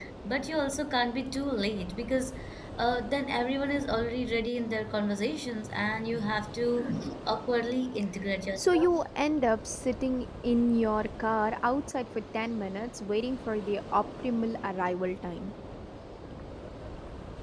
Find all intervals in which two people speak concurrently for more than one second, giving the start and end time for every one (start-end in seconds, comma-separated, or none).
none